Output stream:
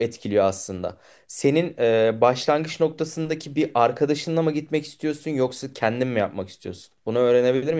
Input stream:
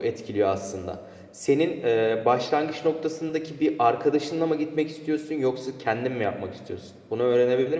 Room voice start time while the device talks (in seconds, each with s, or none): none